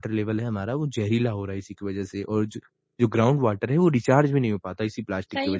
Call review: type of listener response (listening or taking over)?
taking over